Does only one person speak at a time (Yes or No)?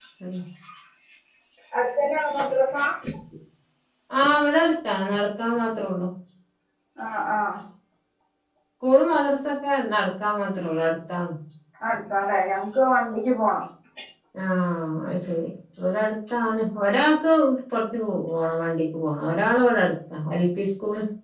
Yes